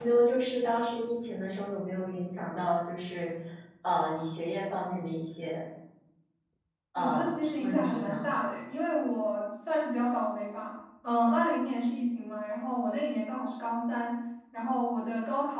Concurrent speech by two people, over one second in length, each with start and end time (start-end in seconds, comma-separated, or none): 7.0-8.2